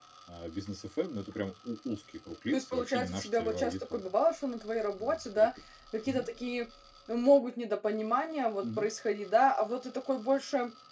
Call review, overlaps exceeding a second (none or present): present